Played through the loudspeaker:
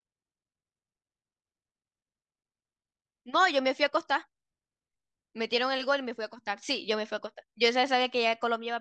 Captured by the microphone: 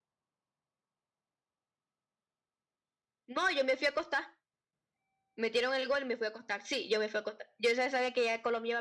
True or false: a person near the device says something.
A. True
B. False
B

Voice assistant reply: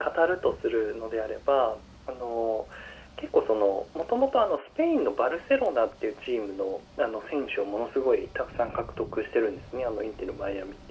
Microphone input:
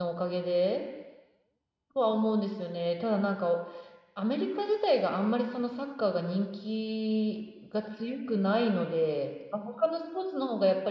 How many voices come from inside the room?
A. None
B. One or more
B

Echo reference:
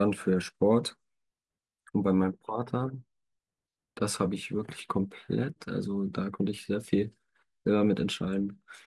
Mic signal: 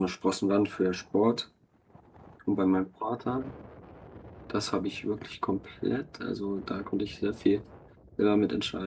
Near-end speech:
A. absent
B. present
A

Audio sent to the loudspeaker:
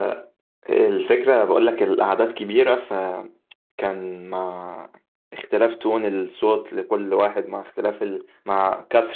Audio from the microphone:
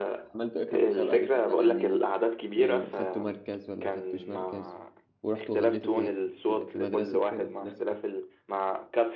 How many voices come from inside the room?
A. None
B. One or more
B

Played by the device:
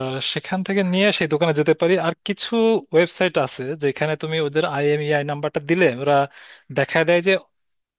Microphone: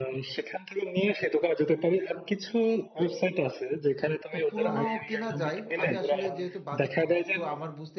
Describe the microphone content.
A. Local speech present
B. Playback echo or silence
A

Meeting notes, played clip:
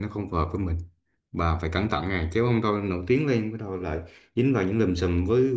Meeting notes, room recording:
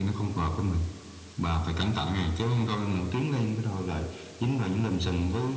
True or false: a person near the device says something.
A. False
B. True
A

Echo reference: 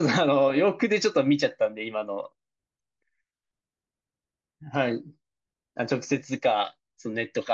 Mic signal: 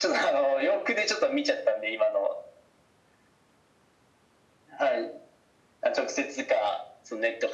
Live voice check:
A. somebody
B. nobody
B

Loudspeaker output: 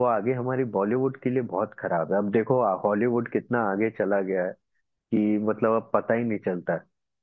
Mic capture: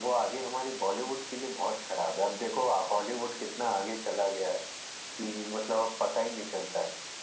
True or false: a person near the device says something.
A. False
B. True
A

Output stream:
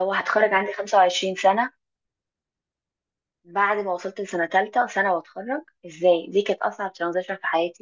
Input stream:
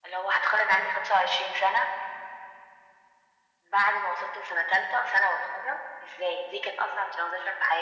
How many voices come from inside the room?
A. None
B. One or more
A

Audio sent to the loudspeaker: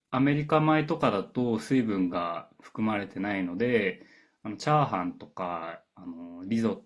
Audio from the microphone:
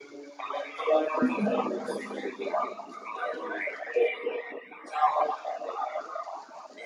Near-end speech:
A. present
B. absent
A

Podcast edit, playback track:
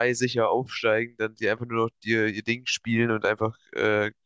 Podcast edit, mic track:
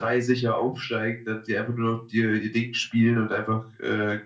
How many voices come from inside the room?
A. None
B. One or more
A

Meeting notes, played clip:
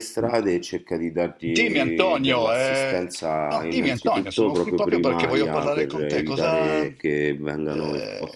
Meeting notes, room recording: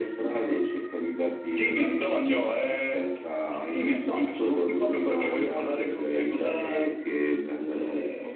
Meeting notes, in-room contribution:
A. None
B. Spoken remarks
A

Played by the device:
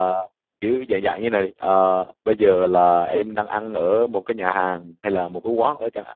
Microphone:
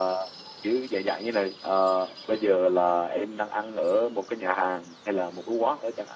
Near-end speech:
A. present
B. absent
B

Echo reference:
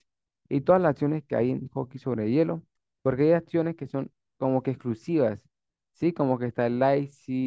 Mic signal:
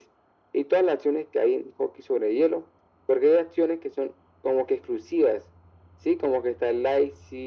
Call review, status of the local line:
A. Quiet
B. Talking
A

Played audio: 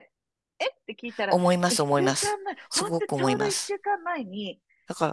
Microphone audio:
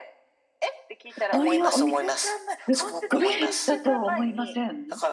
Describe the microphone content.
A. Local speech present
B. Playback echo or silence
A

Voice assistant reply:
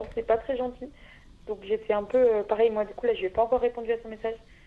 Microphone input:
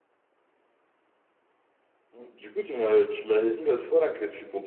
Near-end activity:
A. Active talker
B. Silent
A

